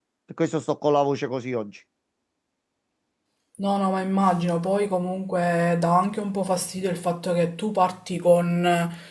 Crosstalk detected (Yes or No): No